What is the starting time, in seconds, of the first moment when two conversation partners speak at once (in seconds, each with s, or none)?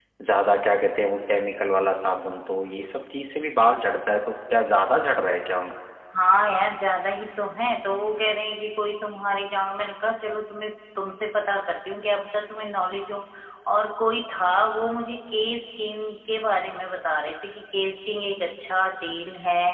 none